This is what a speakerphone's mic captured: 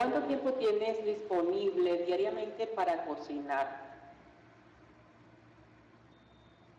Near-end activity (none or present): none